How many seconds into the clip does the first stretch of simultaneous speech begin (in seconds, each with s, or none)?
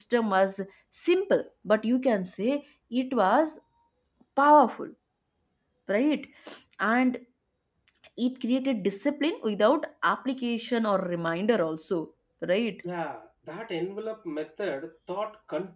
none